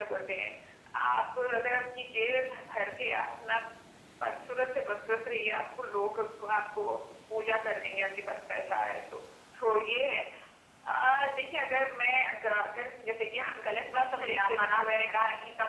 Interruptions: present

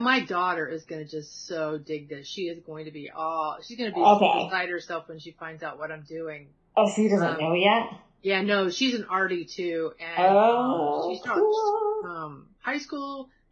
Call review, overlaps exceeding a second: present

